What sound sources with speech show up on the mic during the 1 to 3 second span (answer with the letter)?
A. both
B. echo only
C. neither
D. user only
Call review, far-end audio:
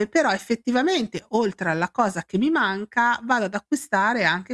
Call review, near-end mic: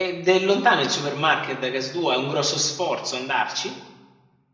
D